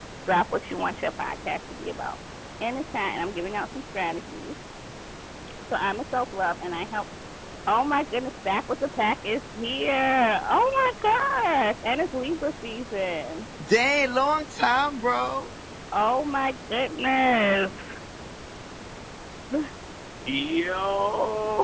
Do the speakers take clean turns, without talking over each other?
Yes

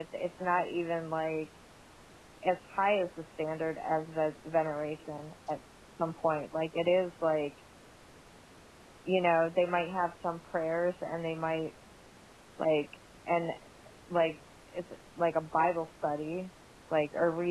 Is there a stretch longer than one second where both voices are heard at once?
No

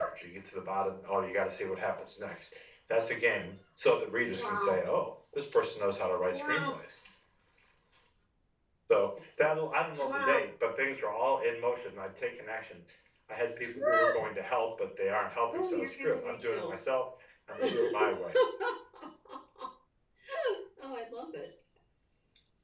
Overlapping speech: Yes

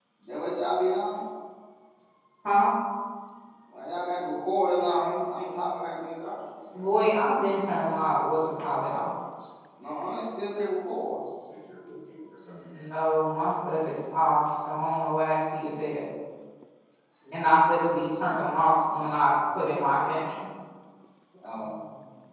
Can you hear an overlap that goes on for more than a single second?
No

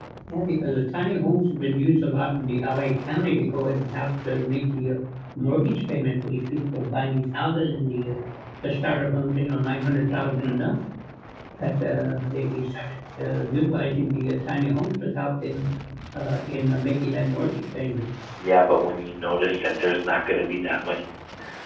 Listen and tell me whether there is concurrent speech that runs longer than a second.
No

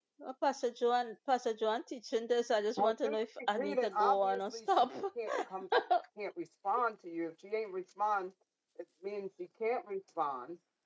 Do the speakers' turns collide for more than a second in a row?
Yes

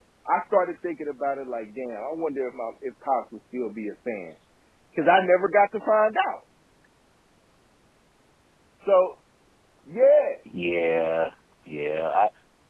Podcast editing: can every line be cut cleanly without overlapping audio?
Yes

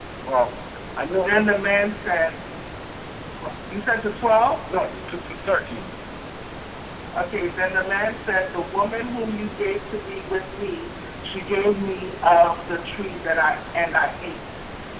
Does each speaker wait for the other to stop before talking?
Yes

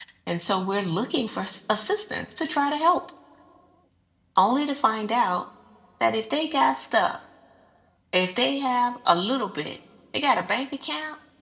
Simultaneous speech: No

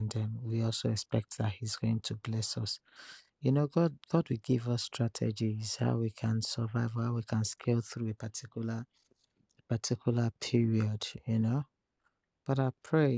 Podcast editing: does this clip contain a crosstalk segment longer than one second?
No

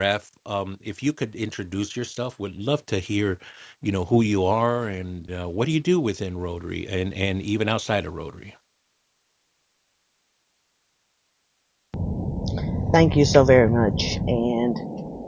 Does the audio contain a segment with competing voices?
No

